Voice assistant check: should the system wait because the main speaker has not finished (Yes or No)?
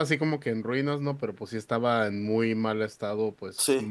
Yes